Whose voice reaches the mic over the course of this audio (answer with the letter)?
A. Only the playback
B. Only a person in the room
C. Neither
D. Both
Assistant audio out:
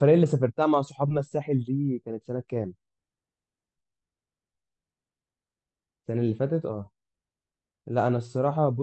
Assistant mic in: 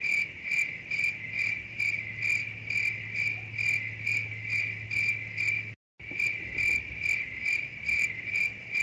C